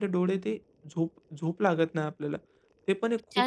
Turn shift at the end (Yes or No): Yes